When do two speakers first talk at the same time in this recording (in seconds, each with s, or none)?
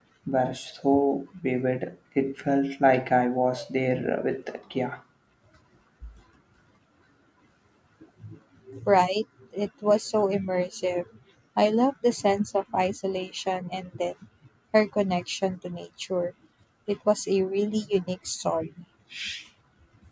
none